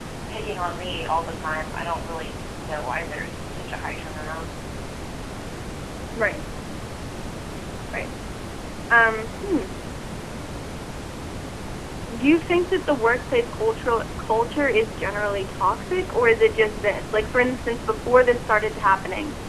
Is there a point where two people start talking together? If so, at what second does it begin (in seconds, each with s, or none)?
none